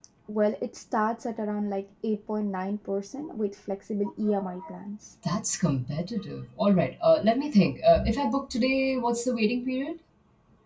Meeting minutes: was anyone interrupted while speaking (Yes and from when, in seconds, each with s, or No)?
No